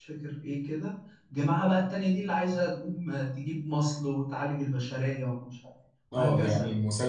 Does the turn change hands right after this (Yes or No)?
Yes